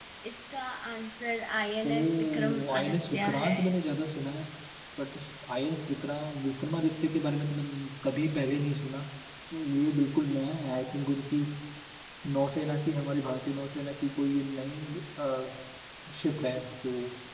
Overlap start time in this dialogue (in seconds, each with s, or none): 1.8 s